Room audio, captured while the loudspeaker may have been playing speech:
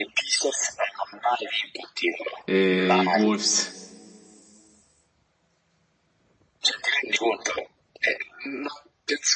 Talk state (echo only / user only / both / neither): both